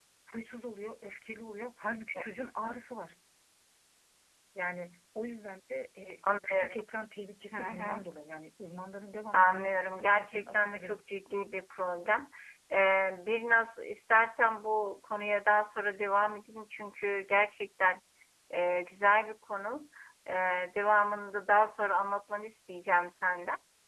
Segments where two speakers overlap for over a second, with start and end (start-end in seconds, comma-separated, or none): 9.3-11.0